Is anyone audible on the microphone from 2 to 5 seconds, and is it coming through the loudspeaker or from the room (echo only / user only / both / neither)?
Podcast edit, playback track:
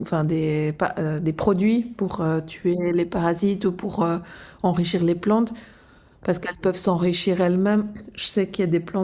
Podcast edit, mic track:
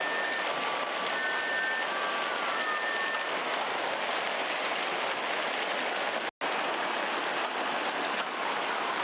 neither